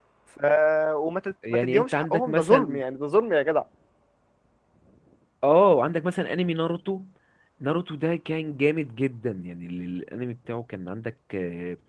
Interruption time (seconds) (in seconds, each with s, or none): 1.5 s